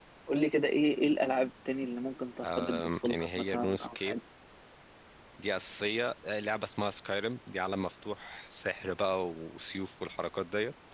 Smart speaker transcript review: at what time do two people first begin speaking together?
2.4 s

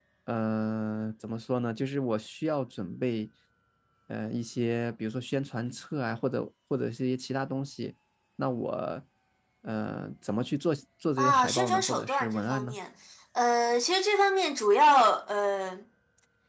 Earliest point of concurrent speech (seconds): 11.2 s

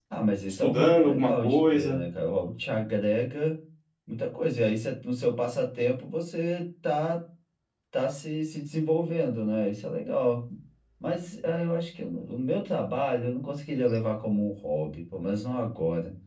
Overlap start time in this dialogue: 0.6 s

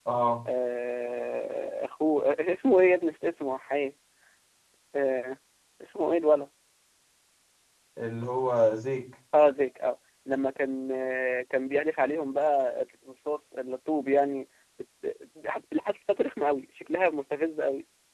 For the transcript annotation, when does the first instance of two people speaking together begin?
none

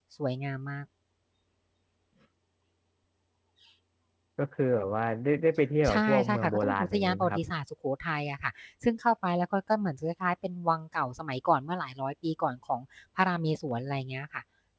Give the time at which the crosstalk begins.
5.8 s

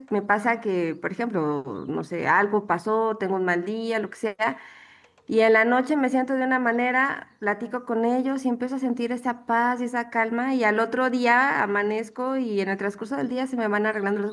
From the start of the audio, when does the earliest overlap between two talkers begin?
none

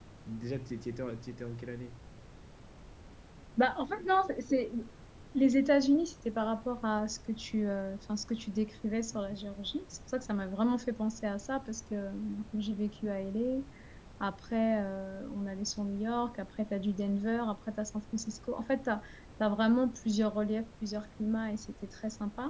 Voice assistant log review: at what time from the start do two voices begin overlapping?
none

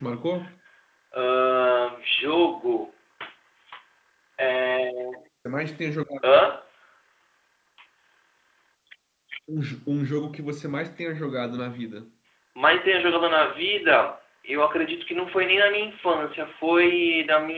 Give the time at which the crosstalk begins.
none

